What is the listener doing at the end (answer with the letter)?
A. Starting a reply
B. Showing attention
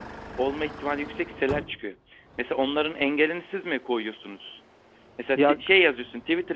B